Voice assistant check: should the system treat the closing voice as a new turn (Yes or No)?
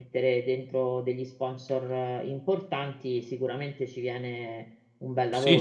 Yes